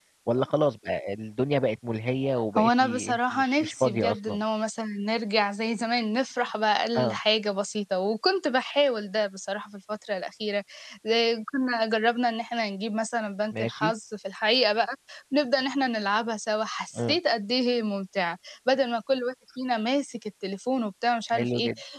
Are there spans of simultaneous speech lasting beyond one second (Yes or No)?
Yes